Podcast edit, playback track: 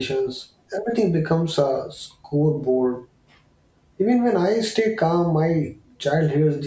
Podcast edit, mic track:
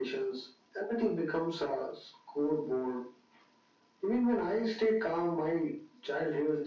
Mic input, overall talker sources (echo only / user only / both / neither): echo only